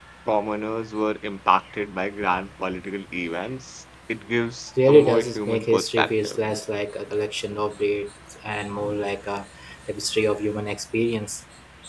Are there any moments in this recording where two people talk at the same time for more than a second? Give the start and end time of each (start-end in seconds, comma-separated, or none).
4.9-6.4